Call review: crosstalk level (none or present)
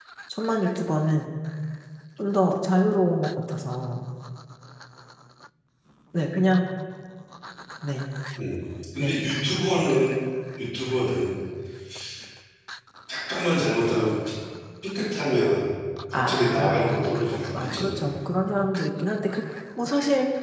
present